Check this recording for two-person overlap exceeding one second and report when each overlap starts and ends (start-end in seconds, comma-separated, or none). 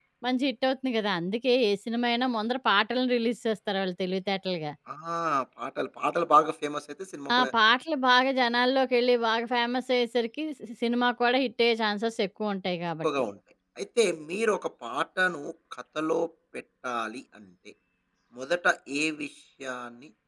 none